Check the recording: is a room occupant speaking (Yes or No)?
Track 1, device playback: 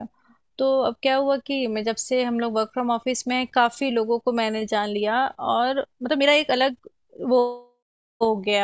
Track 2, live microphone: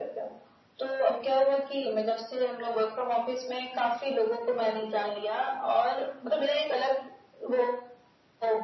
No